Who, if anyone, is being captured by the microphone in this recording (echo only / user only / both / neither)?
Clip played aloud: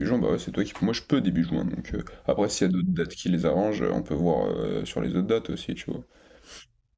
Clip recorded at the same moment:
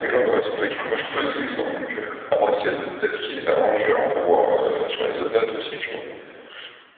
echo only